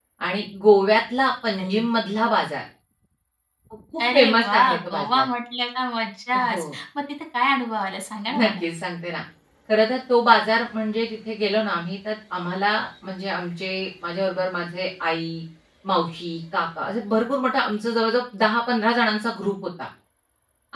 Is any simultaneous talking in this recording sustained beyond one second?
Yes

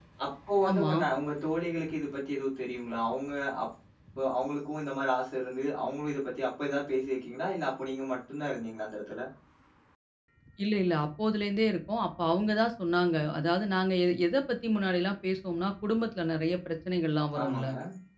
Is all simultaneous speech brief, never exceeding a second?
Yes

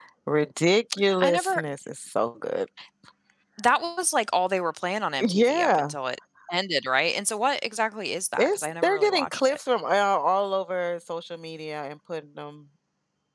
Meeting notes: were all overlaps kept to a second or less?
No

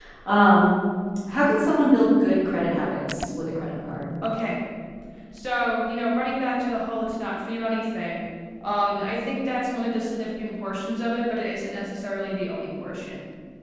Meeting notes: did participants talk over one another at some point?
No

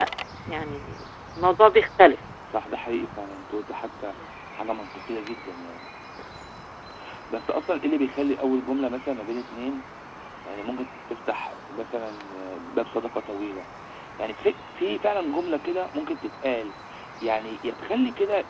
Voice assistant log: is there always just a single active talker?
Yes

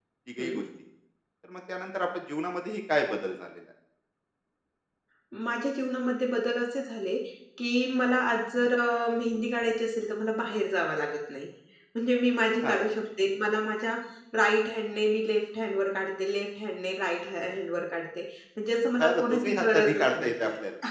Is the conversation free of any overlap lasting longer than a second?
No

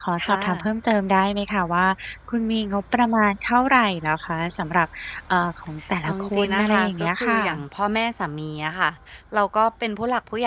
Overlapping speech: Yes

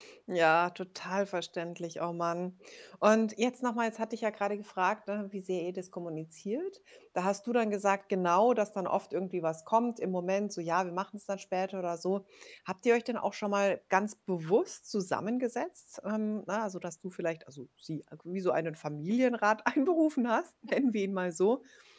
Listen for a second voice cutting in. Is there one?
No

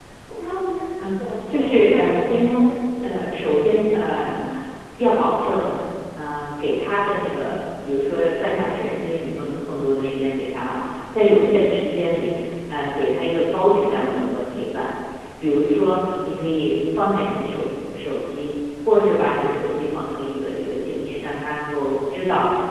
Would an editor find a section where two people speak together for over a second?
Yes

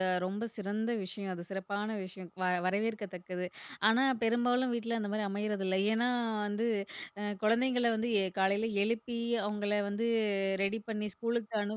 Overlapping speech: No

